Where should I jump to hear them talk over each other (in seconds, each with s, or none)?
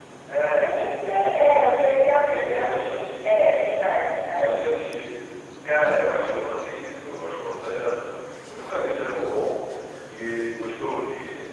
0.6 s